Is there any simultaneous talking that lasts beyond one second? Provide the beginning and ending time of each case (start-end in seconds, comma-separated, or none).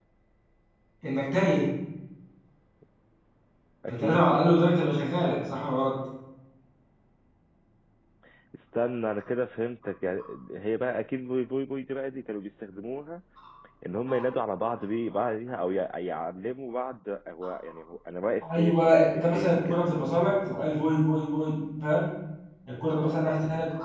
18.5-19.8